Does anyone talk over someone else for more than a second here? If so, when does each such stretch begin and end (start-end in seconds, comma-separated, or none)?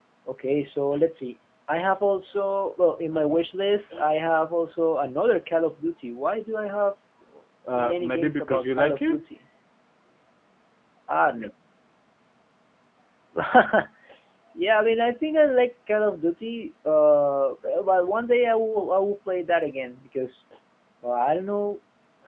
7.7-9.2